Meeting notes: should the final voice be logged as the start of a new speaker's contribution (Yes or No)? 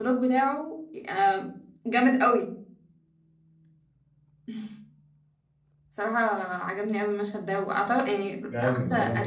Yes